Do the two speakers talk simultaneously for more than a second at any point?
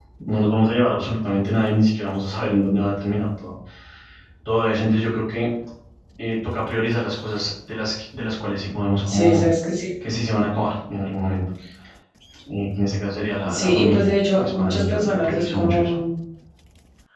Yes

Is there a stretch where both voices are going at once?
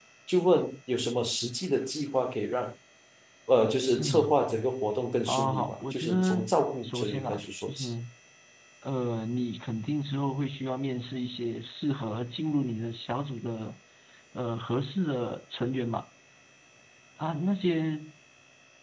Yes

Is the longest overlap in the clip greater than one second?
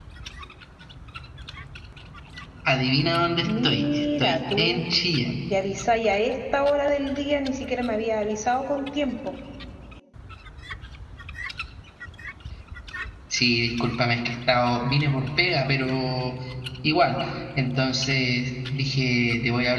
Yes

